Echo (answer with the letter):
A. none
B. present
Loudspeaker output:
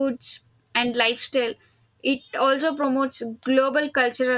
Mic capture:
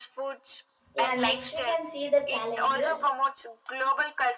B